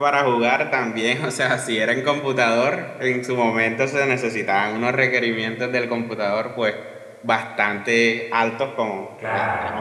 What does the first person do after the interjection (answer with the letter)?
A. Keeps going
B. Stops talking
A